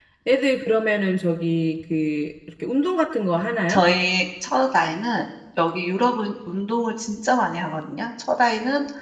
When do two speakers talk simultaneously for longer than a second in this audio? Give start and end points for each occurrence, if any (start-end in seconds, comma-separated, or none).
none